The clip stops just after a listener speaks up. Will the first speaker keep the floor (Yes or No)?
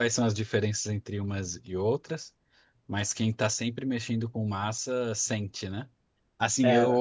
Yes